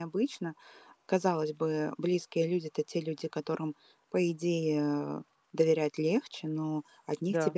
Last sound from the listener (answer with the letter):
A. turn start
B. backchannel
B